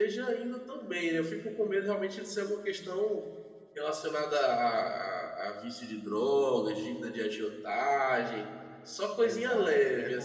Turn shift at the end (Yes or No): Yes